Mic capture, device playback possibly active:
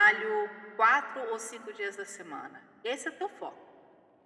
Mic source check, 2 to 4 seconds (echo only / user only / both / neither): echo only